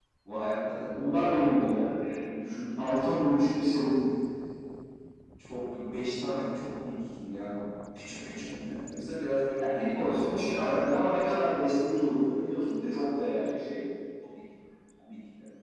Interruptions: present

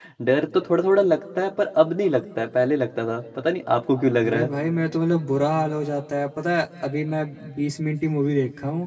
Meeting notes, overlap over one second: none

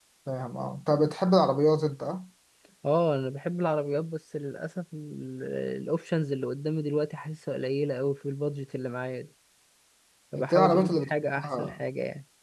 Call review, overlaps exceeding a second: present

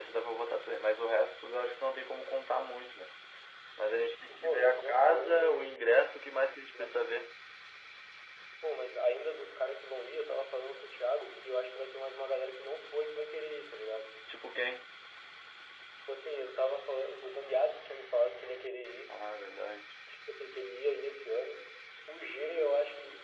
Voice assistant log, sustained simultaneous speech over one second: present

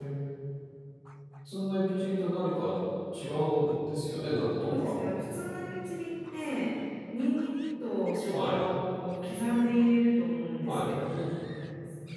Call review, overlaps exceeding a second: none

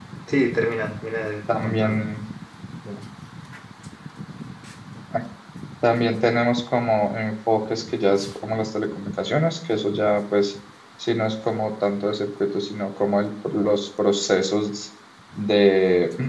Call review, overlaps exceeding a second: none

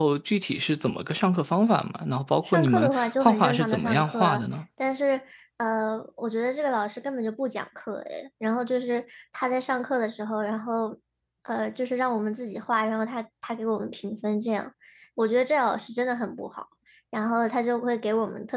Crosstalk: present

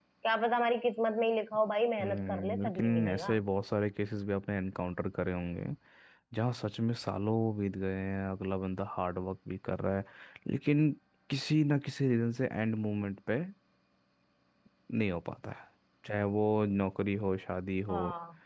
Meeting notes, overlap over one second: present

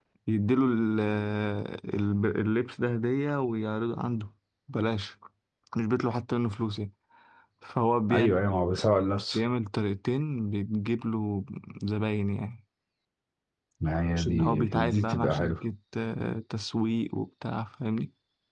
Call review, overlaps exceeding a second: present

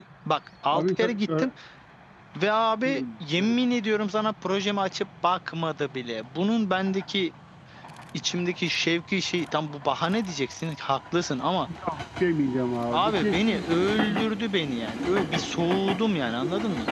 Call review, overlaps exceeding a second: present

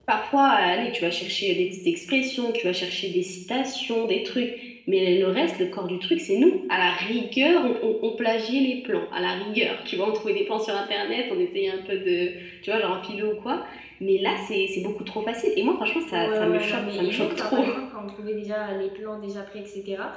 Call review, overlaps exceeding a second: present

